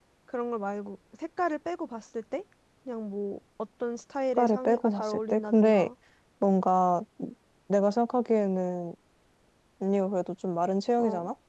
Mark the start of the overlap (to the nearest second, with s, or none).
4 s